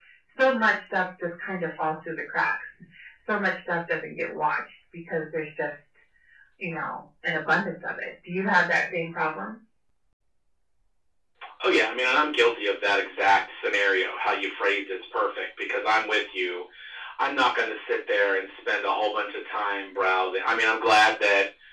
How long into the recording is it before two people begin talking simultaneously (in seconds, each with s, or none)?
none